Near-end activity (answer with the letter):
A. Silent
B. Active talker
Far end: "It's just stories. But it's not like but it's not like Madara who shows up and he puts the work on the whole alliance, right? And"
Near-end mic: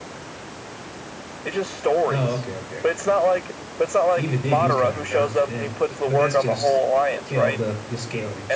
B